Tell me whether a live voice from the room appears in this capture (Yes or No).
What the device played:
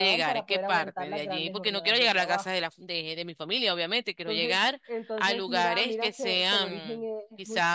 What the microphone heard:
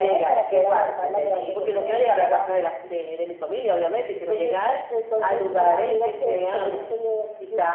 No